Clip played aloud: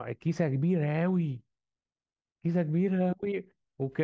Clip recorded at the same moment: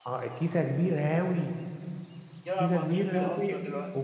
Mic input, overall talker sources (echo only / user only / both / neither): both